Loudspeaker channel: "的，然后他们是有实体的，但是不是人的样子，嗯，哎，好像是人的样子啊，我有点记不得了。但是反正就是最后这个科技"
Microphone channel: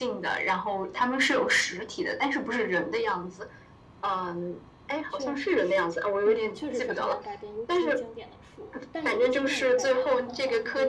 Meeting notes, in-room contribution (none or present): present